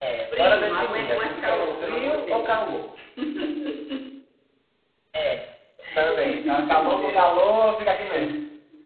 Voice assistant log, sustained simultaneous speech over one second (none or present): present